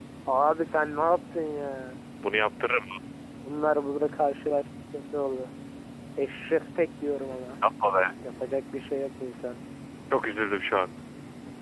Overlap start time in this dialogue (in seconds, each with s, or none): none